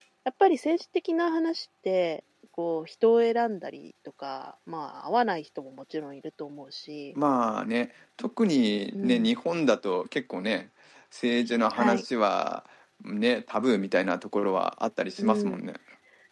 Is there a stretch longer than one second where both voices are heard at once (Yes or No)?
No